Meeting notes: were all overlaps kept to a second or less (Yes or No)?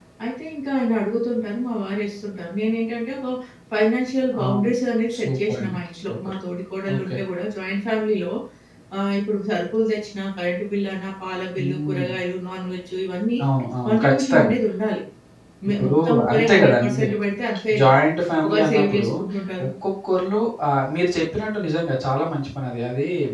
No